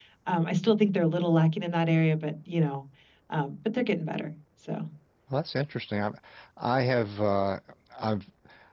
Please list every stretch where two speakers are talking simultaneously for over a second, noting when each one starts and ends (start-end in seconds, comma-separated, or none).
none